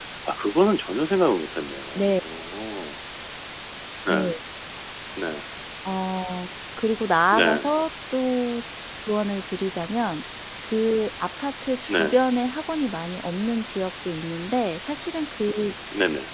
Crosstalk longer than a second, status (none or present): none